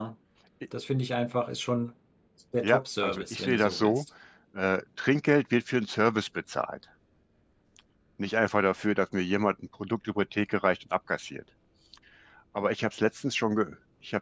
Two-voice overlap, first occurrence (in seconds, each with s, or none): 2.6 s